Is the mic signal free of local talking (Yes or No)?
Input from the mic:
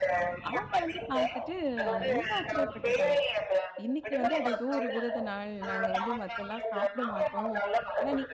No